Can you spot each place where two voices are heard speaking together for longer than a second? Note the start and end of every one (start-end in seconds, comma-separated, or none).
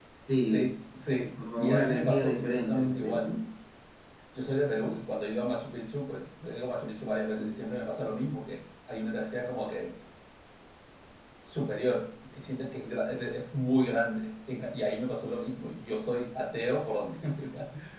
1.6-3.3